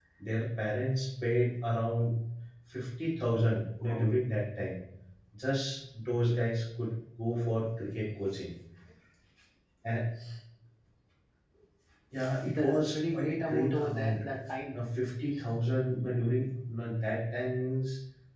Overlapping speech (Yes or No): Yes